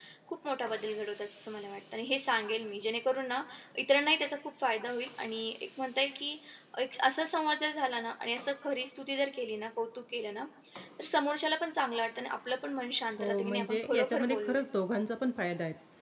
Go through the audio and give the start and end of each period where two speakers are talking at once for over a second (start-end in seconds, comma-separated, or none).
13.2-14.6